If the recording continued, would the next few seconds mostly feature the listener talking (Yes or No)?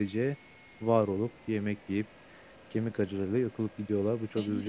Yes